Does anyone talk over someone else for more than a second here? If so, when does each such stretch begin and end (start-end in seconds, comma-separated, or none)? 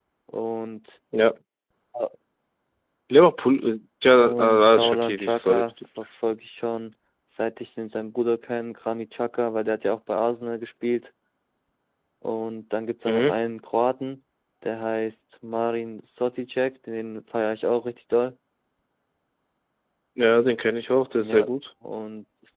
4.1-5.7